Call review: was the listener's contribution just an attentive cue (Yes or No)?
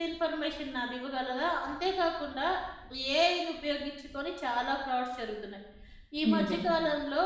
Yes